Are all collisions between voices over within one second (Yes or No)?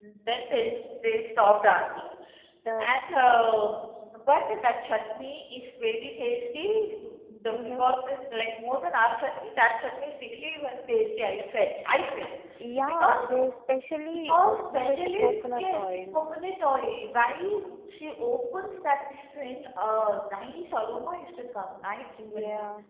No